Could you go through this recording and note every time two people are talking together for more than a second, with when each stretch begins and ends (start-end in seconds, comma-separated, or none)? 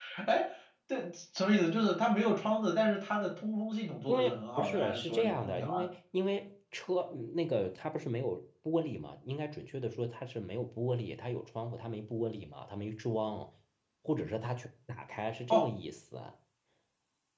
4.1-5.9